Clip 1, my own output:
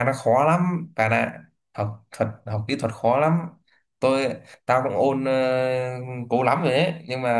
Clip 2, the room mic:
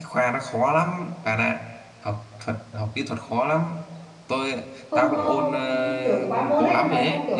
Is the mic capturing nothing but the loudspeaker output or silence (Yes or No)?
No